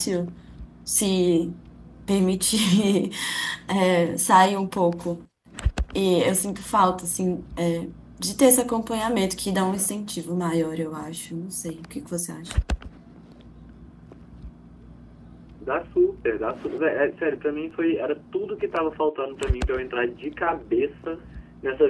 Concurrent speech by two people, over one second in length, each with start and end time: none

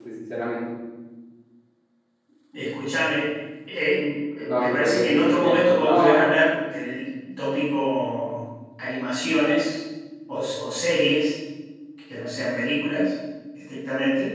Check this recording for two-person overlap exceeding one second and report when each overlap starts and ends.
4.5-6.2

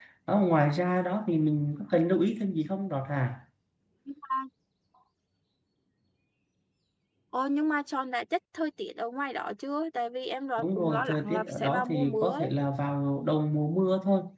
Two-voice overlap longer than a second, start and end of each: 10.6-12.5

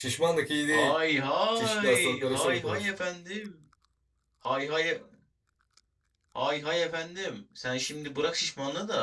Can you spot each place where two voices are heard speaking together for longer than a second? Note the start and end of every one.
1.6-2.9

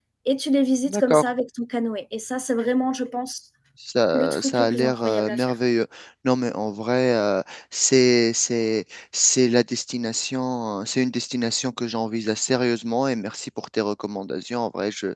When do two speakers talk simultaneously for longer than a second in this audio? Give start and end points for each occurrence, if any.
4.1-5.5

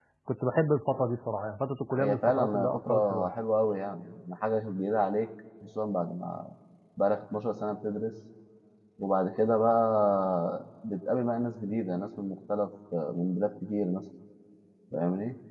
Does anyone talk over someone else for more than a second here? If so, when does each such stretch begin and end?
2.0-3.4

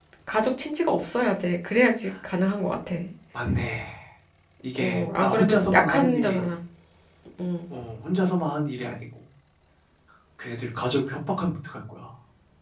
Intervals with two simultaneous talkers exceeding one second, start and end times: 4.8-6.4

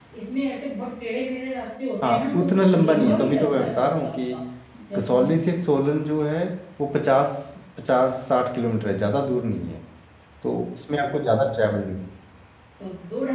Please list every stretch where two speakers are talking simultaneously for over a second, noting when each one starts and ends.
2.0-4.3

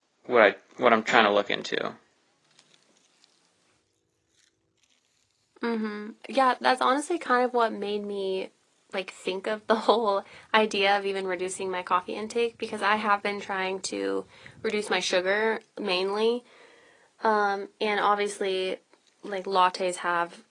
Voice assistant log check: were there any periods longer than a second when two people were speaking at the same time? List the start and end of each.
none

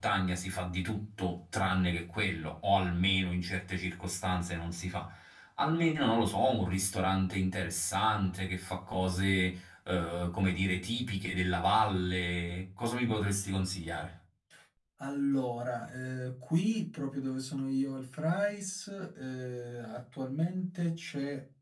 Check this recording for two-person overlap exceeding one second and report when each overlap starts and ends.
none

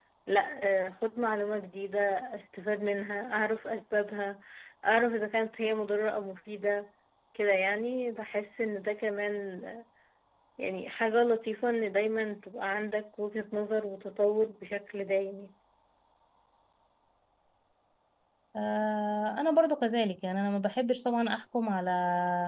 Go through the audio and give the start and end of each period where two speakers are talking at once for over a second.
none

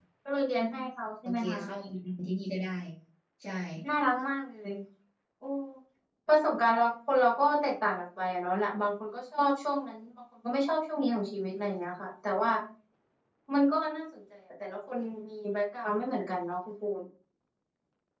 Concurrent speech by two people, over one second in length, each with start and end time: none

